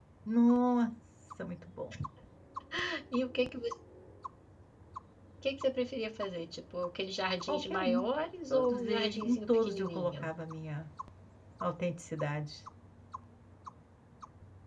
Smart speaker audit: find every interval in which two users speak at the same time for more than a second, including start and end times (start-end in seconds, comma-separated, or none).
8.5-10.3